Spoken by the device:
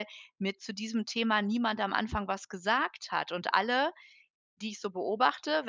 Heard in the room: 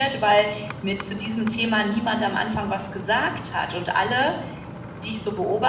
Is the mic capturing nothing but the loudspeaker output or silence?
Yes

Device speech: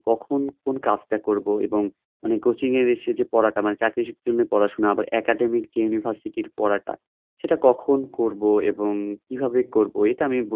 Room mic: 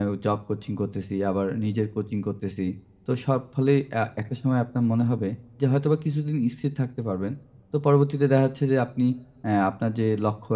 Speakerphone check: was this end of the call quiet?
No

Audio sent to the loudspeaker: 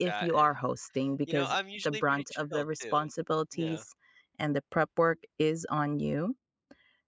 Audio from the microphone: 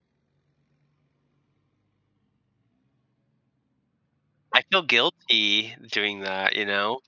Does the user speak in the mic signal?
Yes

